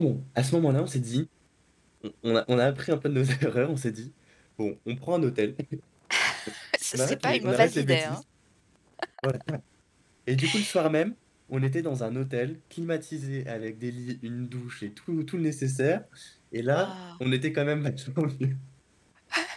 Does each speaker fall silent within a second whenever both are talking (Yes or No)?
No